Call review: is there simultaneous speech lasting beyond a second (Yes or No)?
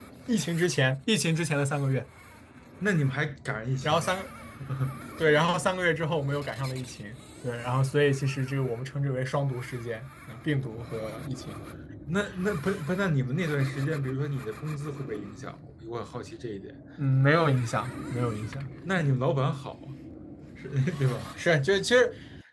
No